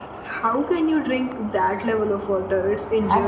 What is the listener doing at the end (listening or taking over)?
taking over